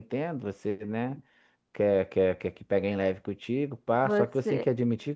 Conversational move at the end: listening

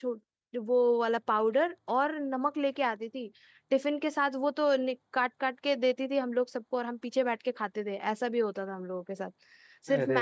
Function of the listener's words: listening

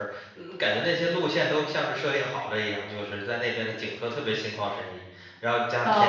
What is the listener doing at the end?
taking over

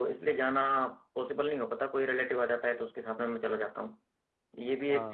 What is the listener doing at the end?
listening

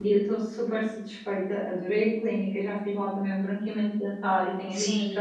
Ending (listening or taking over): listening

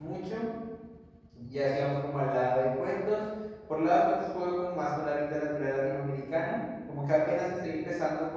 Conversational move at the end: listening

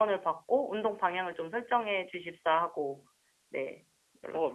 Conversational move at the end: taking over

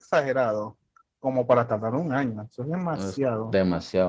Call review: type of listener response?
taking over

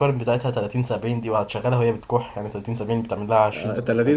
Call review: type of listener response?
taking over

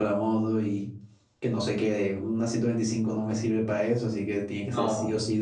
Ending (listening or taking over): listening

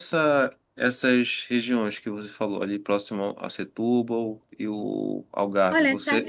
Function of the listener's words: taking over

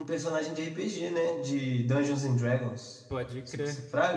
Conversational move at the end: taking over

